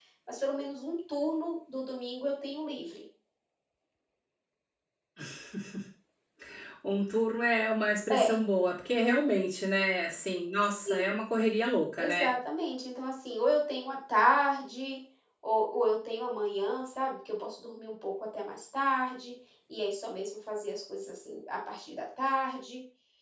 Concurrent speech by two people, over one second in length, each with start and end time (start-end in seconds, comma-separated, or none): none